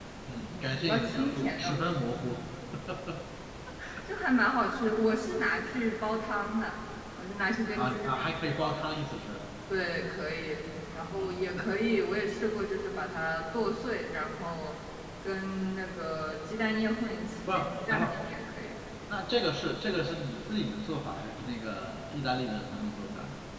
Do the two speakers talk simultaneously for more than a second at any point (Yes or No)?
Yes